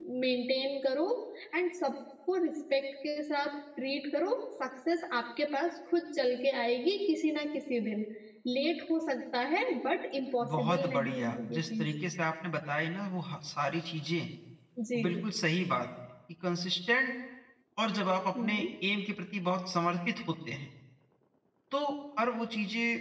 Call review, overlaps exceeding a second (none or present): present